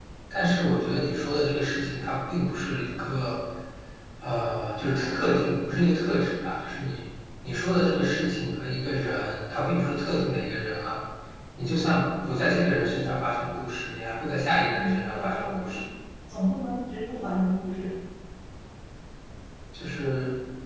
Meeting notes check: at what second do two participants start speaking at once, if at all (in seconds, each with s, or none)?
14.5 s